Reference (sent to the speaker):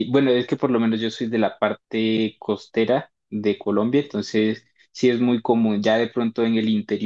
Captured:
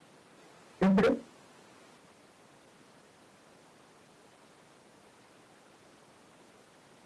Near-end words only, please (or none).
Ujú.